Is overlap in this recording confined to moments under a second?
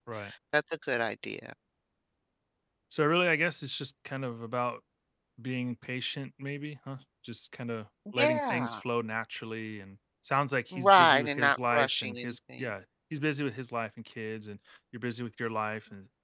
No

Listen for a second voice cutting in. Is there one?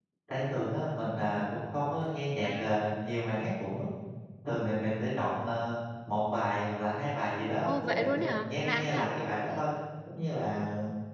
Yes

